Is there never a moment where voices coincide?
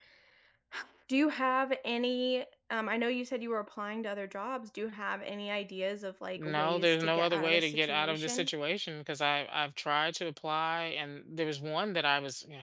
No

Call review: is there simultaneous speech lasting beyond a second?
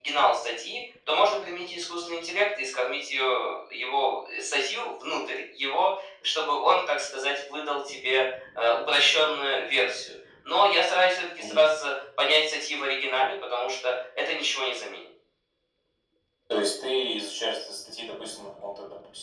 No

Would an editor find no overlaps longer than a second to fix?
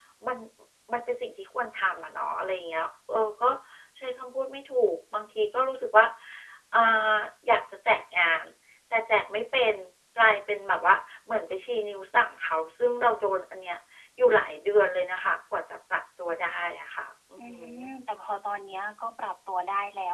Yes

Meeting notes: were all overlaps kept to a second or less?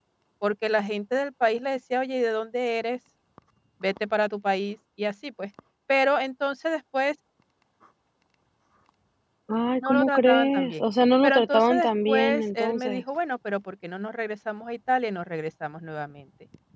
No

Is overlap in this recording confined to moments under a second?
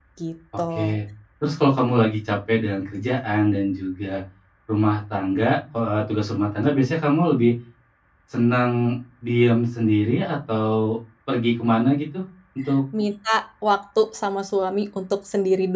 Yes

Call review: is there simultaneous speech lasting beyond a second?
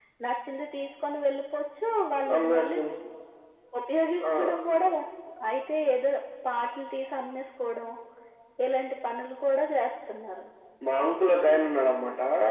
No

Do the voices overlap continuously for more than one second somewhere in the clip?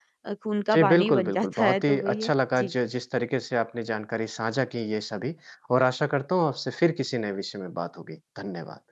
Yes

